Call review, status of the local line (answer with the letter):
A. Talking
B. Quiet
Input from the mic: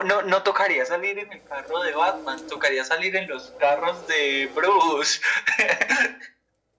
B